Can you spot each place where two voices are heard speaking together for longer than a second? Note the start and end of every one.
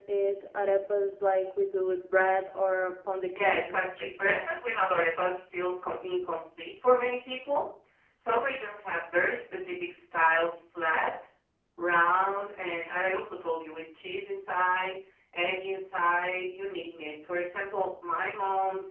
3.3-4.6

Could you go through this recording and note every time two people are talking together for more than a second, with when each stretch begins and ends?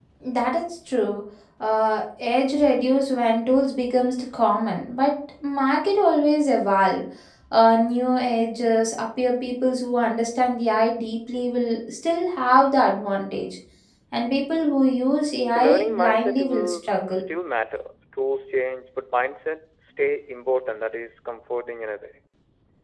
15.5-17.0

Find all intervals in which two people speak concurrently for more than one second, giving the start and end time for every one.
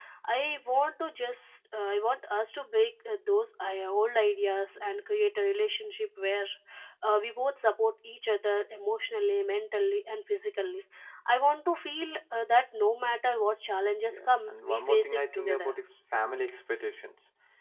14.1-15.7

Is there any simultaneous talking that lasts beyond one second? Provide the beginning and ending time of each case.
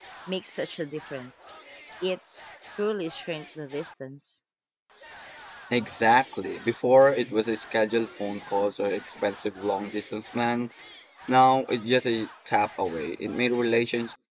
none

